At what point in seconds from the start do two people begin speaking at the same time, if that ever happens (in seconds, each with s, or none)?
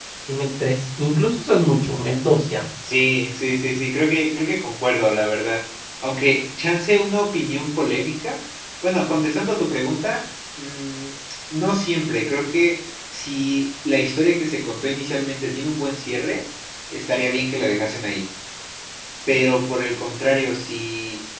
none